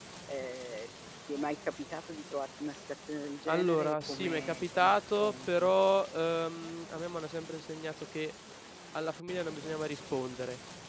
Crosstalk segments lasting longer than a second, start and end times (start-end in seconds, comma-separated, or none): 3.5-5.7